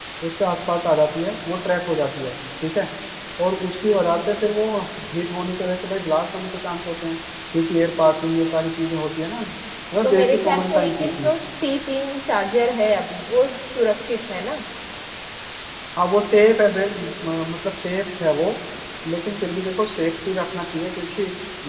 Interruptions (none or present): present